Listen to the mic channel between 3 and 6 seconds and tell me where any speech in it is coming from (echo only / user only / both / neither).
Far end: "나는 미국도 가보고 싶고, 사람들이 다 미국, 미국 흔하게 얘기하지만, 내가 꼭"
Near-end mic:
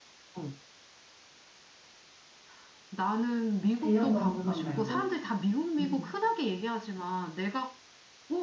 both